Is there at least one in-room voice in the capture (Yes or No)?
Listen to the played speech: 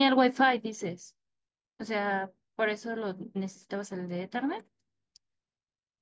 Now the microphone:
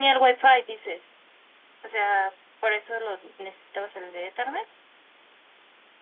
No